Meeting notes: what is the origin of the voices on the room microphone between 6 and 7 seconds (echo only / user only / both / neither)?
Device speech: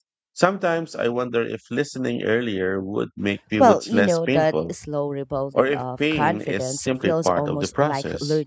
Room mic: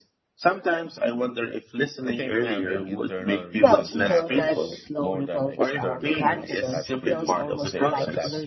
both